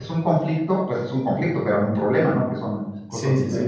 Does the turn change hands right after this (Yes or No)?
Yes